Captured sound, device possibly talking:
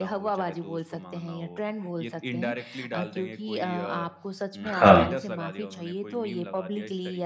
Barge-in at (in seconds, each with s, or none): 4.6 s